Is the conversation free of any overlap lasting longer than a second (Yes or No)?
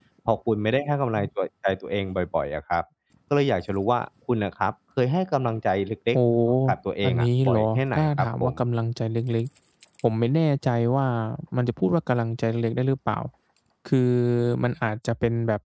No